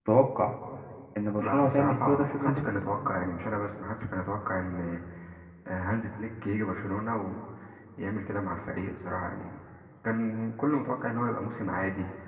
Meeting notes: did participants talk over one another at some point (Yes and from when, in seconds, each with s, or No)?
Yes, from 1.4 s